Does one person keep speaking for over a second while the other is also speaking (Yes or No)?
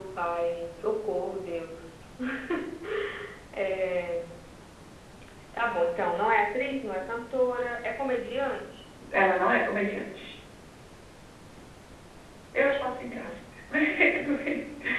No